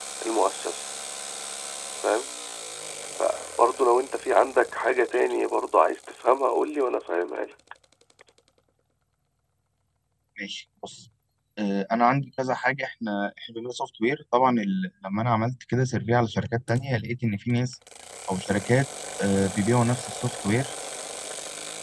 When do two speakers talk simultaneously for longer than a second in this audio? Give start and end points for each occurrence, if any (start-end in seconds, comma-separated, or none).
none